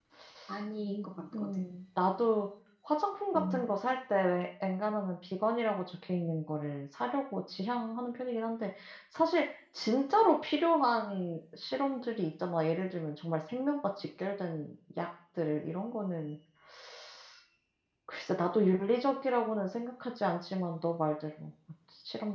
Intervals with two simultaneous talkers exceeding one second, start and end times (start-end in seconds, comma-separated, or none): none